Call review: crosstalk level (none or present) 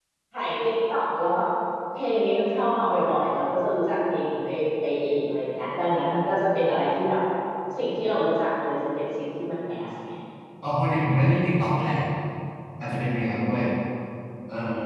none